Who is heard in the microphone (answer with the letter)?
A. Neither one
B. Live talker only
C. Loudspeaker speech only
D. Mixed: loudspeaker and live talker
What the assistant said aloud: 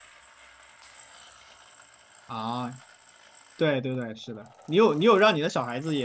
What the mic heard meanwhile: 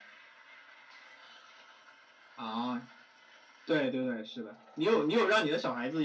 C